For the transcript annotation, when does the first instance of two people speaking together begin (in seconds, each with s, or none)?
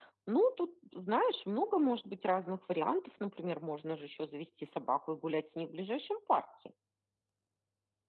none